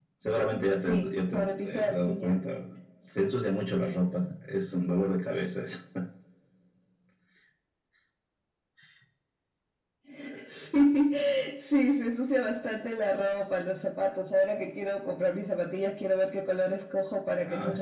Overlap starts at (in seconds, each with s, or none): 0.8 s